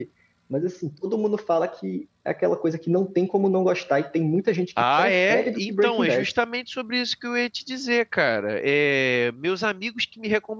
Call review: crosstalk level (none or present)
present